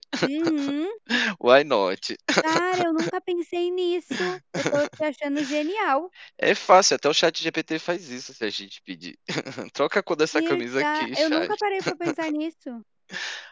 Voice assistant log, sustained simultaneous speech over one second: present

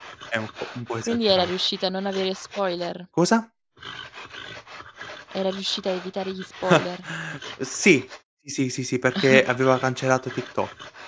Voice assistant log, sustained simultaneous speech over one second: none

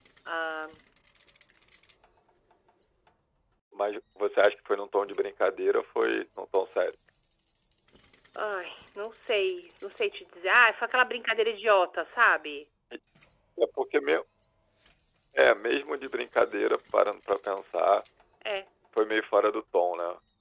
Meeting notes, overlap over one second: none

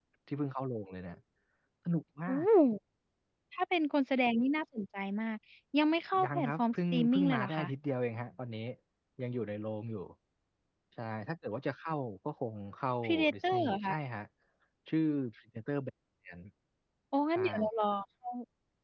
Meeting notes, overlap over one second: present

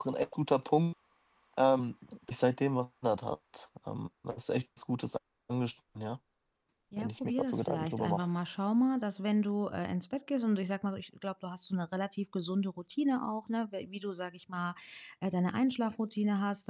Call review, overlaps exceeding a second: present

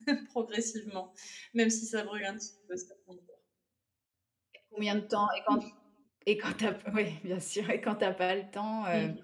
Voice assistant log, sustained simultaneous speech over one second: none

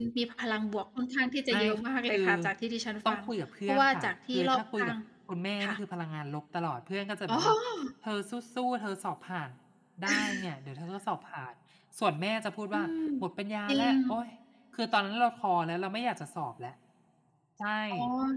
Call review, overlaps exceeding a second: present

